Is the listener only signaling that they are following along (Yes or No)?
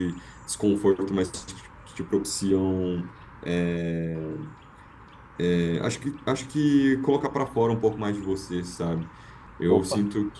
Yes